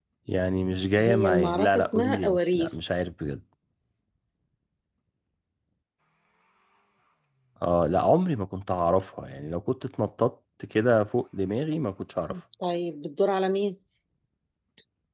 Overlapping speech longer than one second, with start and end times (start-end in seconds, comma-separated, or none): 1.0-2.9